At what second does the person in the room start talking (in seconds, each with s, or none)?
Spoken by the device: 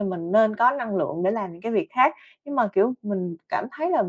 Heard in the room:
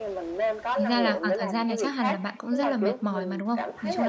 0.8 s